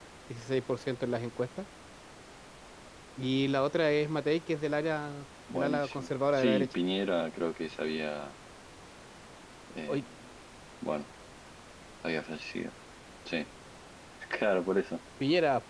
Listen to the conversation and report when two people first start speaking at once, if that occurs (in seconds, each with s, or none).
5.5 s